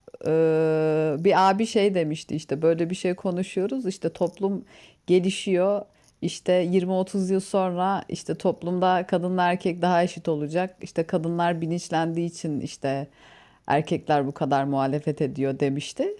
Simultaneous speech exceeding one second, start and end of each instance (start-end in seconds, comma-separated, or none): none